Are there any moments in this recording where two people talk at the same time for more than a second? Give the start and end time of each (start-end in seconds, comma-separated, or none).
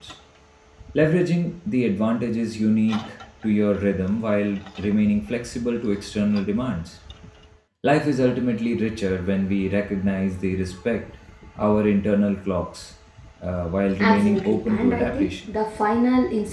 14.0-15.3